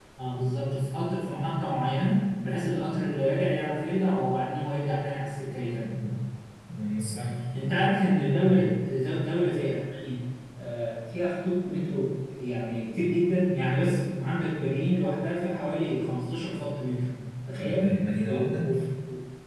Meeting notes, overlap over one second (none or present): none